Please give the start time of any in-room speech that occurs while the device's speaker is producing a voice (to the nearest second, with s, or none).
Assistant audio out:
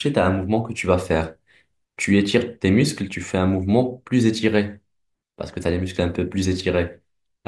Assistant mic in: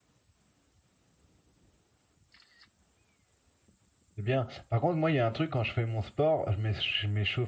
4 s